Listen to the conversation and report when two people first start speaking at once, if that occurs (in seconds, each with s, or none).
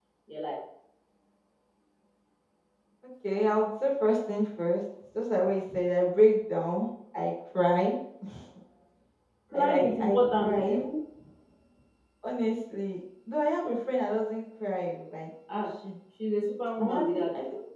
9.5 s